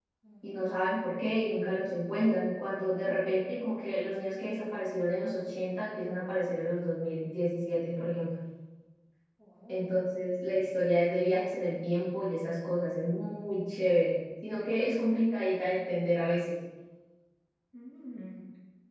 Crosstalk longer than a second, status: none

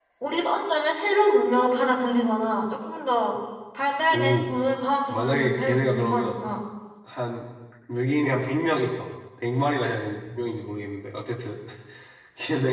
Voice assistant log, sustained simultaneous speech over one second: present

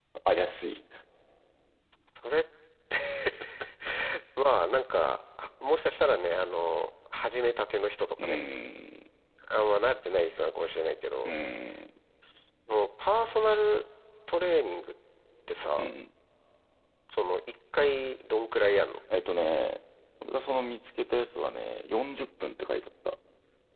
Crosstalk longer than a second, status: none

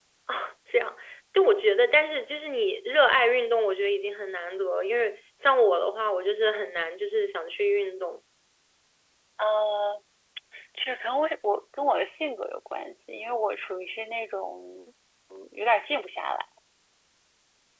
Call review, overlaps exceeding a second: none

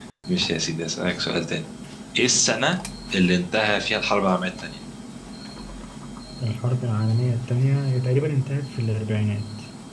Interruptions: none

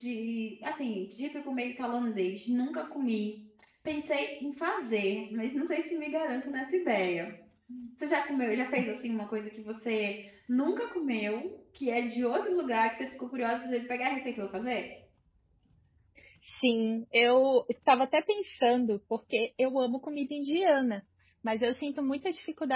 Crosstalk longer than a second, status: none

